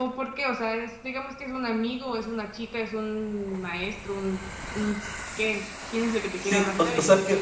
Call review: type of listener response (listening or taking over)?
taking over